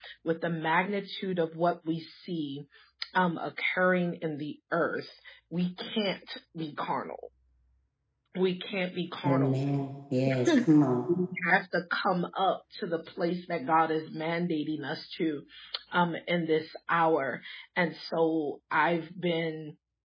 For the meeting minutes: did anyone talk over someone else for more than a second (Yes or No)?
No